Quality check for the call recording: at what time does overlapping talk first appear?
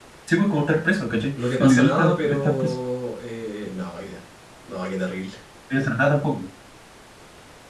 1 s

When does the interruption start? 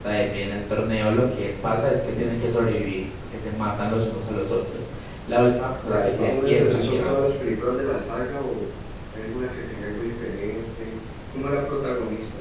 6 s

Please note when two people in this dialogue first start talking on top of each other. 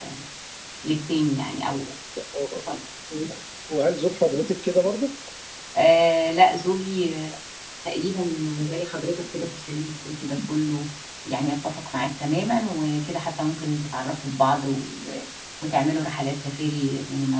none

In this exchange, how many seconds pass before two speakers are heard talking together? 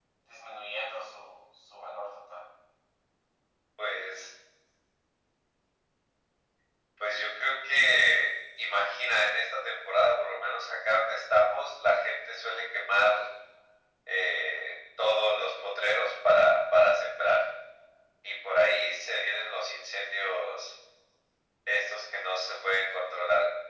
none

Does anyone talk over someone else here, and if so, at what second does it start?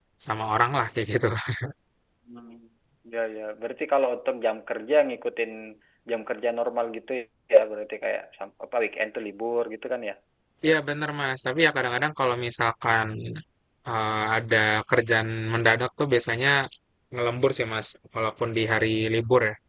none

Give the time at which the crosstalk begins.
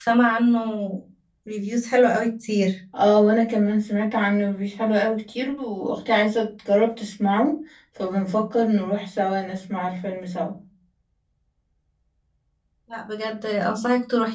none

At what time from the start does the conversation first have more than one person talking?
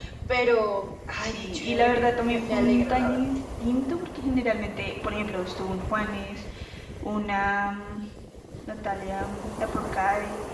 1 s

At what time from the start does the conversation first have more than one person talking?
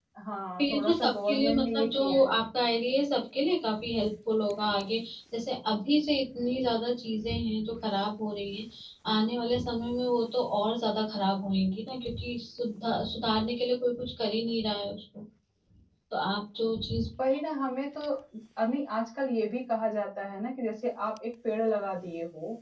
1 s

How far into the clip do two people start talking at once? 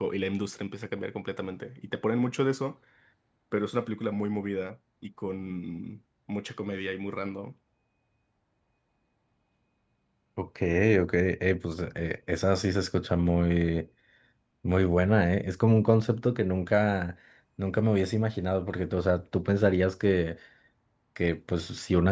none

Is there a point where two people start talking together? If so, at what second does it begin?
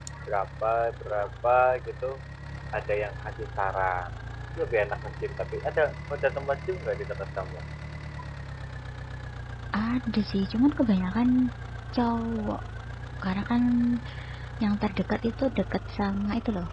none

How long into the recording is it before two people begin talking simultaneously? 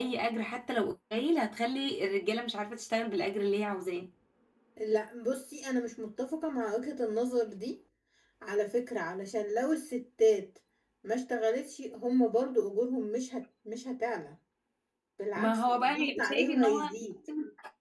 15 s

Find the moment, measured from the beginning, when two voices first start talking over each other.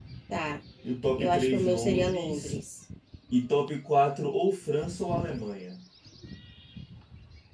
1 s

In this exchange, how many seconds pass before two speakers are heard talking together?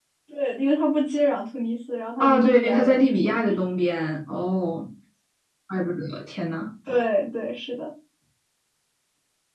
2 s

